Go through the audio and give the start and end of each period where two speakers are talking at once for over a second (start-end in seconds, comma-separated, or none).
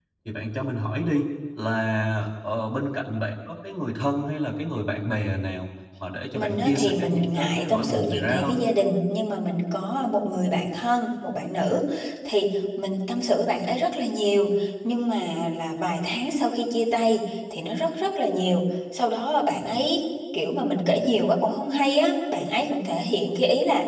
6.4-8.6